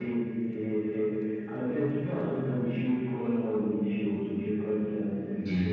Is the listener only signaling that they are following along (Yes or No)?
Yes